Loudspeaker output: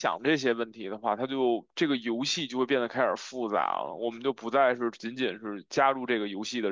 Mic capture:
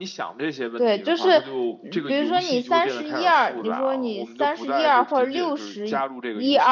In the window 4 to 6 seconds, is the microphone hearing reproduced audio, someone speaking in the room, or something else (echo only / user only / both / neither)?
both